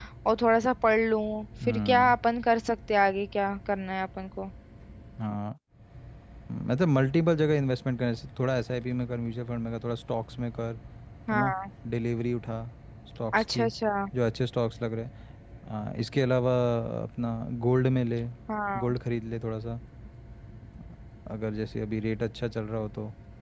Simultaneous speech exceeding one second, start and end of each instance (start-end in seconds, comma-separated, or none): none